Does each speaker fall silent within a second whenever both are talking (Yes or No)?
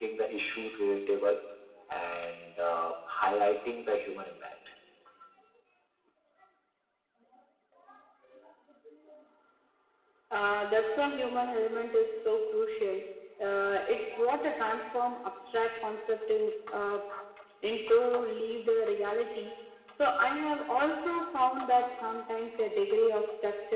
Yes